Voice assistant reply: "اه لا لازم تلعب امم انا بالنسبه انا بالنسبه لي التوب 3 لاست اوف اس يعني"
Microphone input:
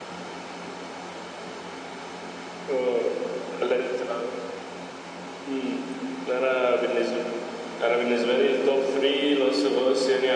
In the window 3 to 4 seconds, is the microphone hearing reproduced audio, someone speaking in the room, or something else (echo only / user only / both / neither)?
echo only